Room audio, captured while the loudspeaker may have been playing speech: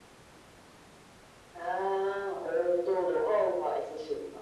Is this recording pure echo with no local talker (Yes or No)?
Yes